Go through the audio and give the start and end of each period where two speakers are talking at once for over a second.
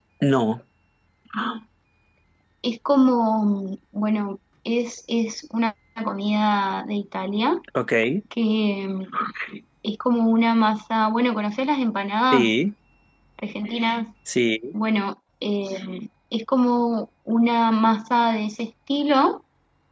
none

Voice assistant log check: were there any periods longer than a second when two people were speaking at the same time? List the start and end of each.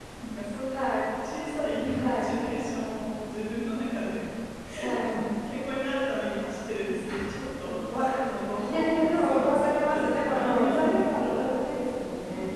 8.7-11.5

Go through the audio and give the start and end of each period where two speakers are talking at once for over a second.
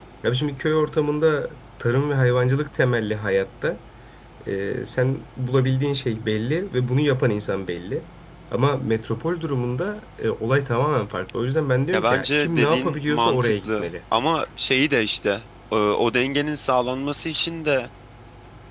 11.9-13.9

